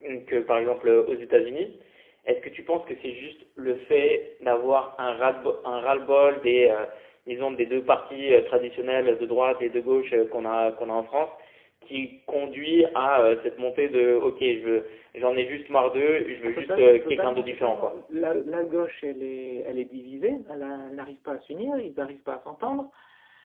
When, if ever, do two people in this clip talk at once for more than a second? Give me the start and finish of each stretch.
16.4-18.0

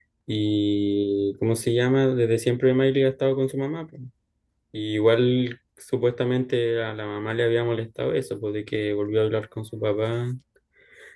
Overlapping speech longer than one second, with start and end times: none

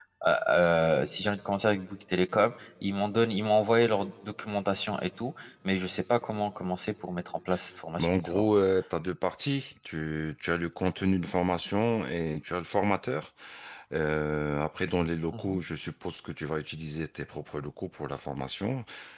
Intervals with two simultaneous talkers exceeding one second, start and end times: none

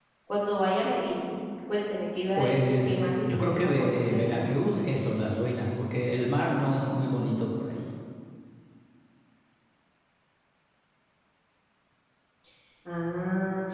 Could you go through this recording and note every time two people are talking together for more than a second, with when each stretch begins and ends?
2.4-4.2

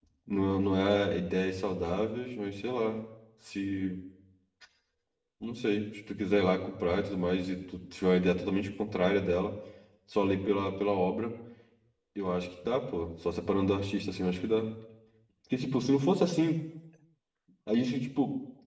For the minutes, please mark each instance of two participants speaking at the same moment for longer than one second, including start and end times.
none

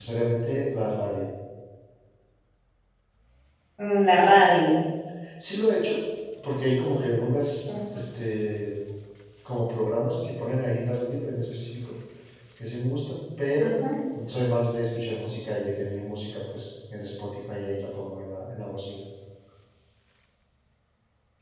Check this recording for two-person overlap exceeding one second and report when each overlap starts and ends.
none

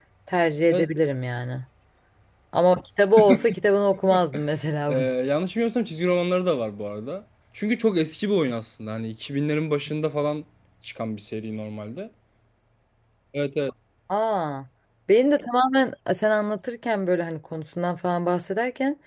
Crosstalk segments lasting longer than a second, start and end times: none

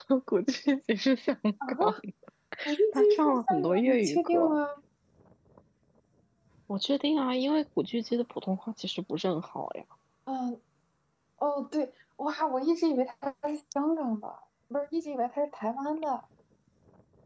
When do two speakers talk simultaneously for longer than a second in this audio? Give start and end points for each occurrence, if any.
2.9-4.6

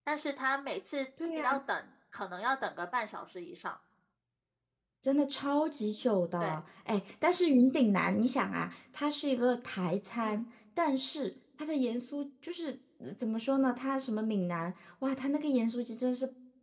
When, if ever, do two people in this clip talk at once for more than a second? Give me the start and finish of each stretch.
none

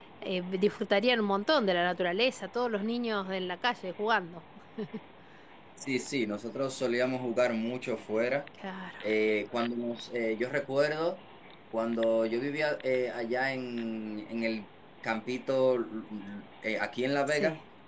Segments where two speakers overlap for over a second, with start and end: none

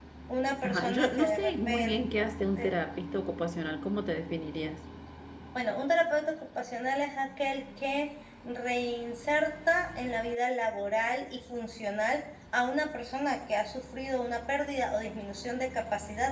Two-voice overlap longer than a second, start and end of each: 0.6-1.9

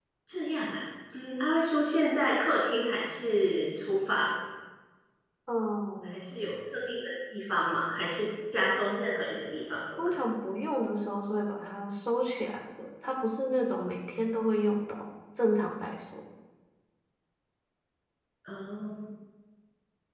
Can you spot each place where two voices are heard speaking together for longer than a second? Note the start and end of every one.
none

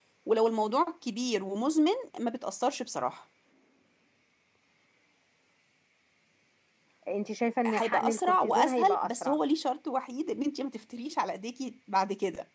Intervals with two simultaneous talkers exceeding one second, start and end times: 7.7-9.4

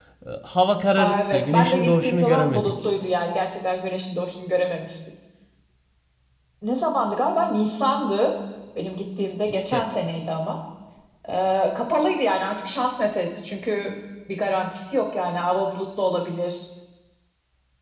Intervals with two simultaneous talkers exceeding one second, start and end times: 0.9-2.8

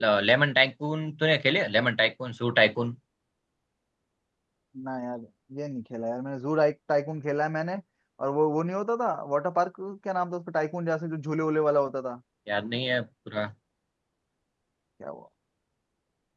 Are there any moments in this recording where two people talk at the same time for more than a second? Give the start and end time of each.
none

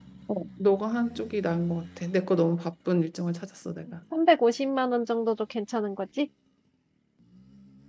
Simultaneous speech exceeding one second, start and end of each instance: none

